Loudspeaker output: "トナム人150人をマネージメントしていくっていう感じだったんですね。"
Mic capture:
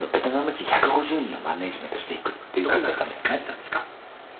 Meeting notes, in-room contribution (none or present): present